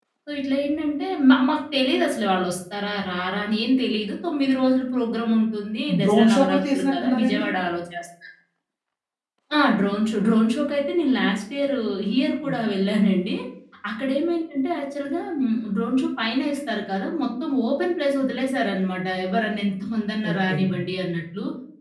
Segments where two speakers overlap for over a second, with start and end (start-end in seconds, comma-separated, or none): 6.0-7.5